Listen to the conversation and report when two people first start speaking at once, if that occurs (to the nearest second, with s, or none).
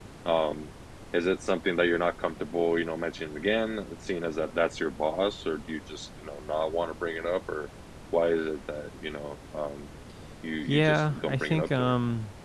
11 s